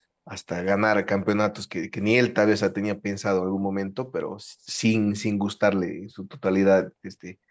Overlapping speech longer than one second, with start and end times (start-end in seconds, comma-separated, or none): none